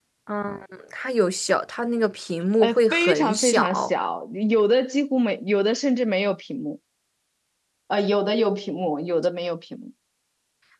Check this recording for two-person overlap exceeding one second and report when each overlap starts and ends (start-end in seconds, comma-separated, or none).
2.6-3.9